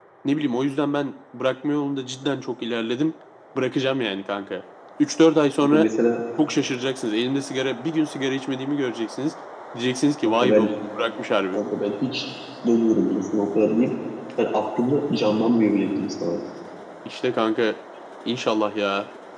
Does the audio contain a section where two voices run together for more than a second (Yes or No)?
No